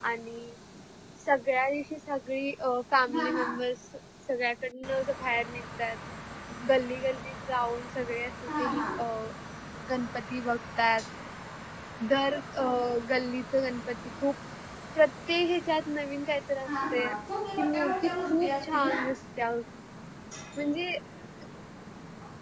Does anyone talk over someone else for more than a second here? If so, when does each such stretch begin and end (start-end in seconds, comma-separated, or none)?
17.6-19.0